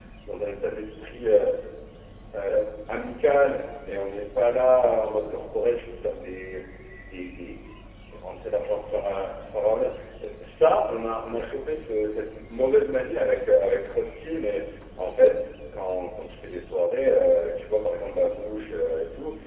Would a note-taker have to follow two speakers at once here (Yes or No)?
No